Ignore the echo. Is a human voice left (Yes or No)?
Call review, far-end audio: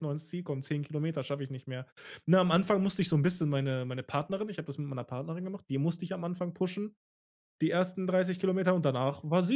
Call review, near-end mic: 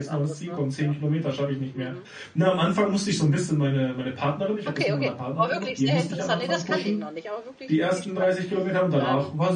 Yes